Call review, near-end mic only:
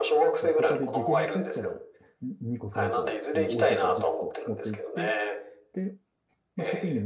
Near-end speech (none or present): present